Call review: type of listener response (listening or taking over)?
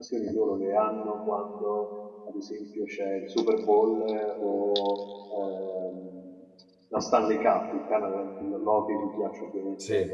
listening